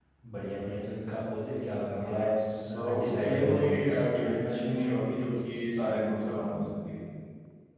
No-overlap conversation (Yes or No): No